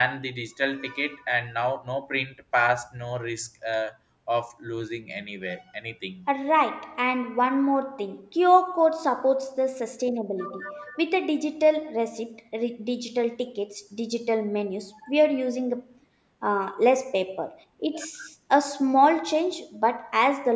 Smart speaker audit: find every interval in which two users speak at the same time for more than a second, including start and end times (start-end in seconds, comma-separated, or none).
none